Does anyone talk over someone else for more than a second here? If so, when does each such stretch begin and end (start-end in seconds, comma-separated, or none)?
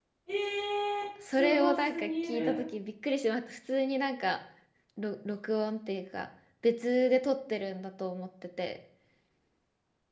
1.3-2.6